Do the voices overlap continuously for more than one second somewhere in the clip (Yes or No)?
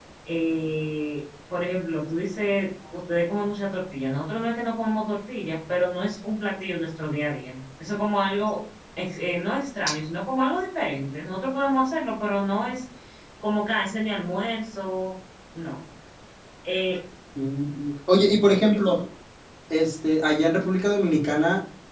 No